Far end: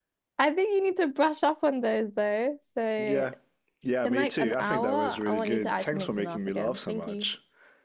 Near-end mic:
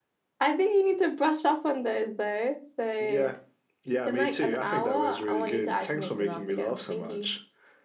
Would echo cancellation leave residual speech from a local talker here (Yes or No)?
No